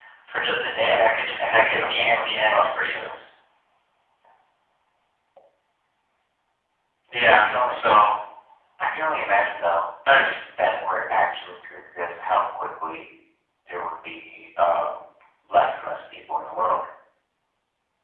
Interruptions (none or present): present